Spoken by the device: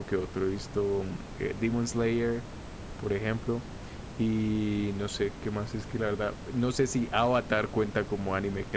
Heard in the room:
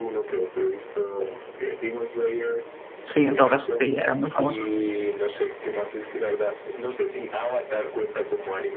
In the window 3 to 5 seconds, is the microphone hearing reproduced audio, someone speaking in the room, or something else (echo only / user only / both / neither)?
both